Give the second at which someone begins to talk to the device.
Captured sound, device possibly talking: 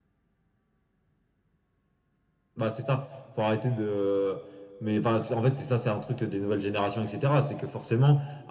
none

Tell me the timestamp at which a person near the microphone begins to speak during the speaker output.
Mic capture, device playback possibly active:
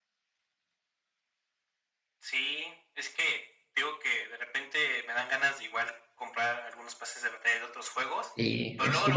8.2 s

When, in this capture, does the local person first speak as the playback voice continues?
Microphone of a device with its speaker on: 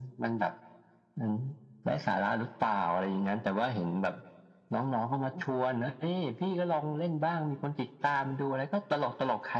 none

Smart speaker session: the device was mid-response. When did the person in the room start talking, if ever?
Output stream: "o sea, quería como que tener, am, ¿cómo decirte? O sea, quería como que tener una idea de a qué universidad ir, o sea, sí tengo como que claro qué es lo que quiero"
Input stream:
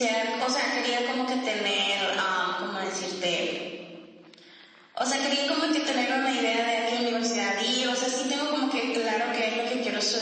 none

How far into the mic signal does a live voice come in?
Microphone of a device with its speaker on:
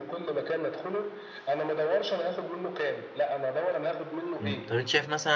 4.4 s

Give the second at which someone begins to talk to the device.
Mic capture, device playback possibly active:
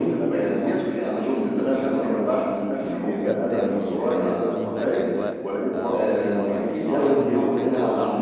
3.2 s

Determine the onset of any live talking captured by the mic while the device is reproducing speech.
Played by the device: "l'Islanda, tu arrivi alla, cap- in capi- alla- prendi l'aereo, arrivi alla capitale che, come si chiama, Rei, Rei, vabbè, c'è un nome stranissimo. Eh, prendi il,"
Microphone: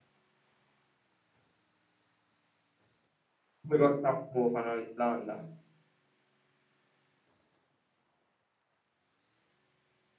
3.6 s

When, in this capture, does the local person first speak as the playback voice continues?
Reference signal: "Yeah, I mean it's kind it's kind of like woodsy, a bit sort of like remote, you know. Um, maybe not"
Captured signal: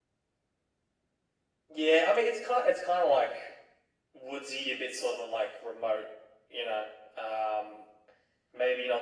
none

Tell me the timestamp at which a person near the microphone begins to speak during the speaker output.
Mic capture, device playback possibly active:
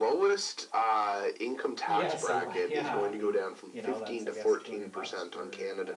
1.9 s

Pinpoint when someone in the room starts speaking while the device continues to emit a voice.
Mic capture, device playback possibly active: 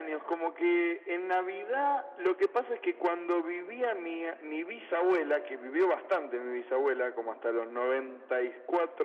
none

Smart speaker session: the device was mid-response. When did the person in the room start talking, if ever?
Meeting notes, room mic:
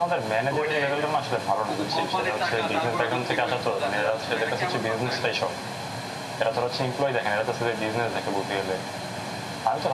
0.5 s

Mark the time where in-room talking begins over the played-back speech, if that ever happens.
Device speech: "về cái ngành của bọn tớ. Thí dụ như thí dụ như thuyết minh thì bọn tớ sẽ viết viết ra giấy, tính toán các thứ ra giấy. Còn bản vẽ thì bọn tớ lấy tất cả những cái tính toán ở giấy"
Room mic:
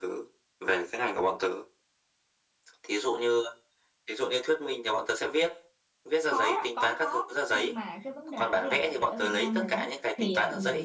6.2 s

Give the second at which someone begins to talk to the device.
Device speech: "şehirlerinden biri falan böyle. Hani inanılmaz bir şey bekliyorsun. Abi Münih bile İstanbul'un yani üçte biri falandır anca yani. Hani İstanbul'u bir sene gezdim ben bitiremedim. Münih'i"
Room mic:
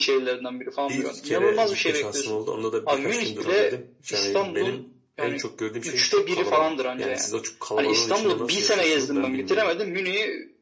0.9 s

